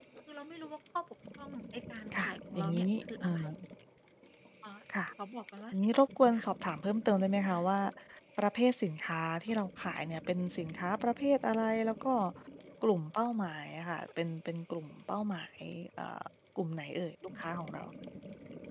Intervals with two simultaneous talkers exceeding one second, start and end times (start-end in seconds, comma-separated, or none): 2.1-3.4